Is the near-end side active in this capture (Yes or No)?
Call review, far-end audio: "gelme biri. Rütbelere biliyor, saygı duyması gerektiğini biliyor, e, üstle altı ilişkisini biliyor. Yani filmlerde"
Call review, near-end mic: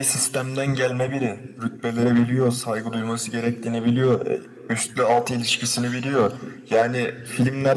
No